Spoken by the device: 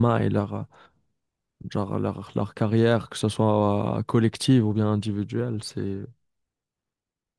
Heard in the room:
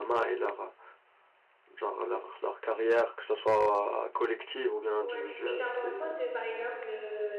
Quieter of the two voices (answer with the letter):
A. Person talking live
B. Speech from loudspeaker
A